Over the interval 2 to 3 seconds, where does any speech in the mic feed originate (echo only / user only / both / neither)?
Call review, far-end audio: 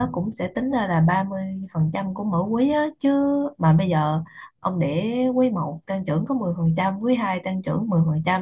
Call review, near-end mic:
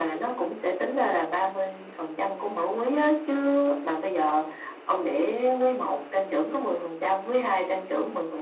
echo only